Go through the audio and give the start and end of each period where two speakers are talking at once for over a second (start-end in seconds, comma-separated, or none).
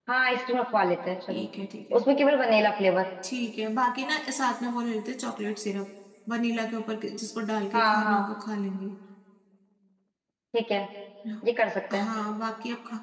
none